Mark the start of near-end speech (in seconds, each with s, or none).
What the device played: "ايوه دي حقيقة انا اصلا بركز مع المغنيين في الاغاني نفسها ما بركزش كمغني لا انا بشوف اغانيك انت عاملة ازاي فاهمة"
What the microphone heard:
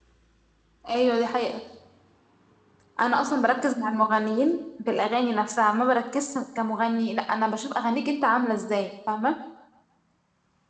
none